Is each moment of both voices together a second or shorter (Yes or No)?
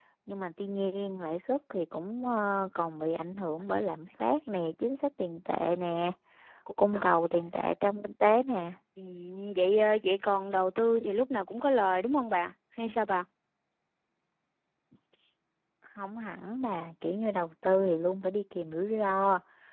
Yes